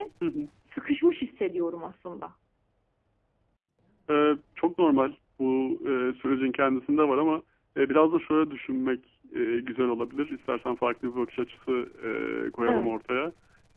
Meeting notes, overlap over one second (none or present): none